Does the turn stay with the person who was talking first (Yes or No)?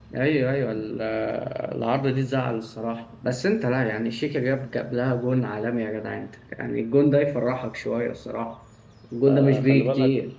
No